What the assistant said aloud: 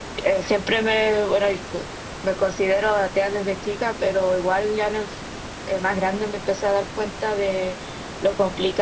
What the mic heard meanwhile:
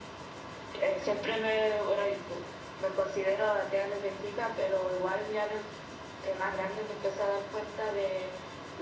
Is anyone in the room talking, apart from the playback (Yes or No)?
No